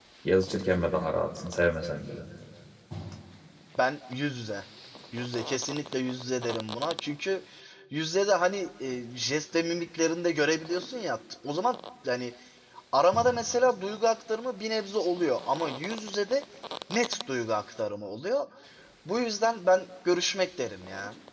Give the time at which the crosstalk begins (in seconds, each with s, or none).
none